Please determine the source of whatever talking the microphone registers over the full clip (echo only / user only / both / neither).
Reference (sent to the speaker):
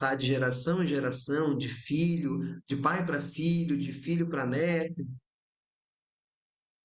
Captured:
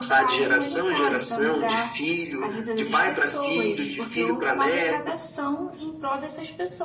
both